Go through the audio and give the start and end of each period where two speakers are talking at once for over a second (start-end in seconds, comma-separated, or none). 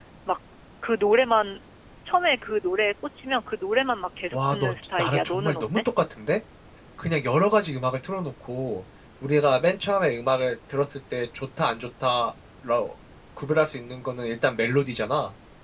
4.3-5.6